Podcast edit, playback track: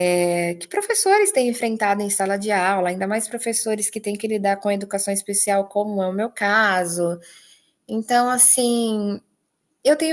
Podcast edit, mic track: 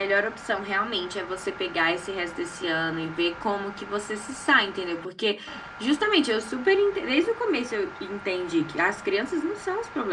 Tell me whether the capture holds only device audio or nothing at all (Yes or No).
No